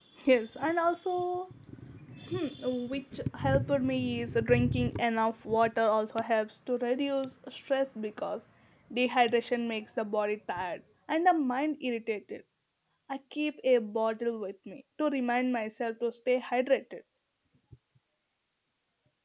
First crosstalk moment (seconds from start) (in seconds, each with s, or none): none